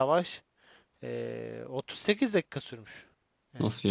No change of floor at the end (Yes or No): Yes